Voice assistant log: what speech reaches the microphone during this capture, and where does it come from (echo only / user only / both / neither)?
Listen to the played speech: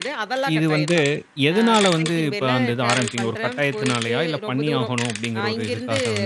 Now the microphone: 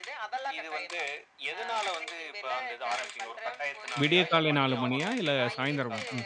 both